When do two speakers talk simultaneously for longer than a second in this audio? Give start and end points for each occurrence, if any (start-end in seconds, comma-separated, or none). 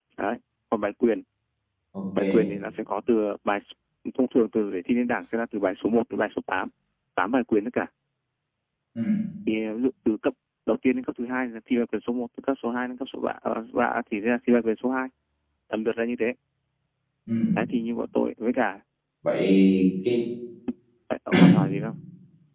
none